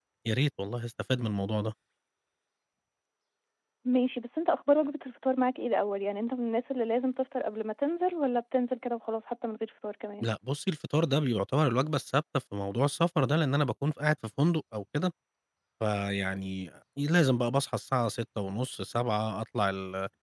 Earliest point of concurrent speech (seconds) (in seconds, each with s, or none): none